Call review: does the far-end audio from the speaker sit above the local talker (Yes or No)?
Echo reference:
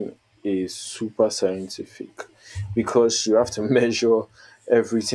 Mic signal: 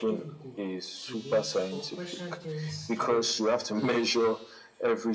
Yes